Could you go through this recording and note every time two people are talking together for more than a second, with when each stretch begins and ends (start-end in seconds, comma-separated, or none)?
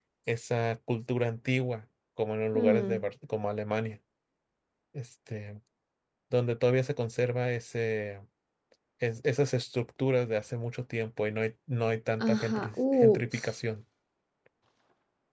12.2-13.6